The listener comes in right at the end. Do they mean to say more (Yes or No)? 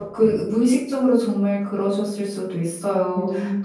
No